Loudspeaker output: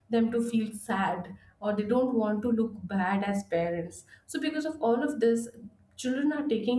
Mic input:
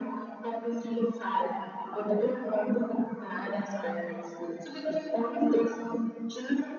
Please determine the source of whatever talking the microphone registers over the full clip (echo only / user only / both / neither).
echo only